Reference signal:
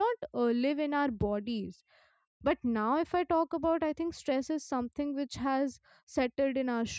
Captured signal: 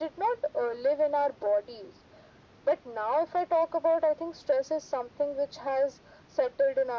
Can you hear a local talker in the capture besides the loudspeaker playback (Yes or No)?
No